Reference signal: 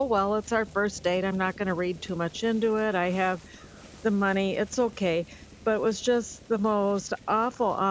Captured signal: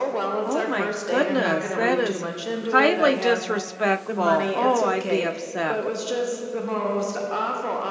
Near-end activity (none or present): present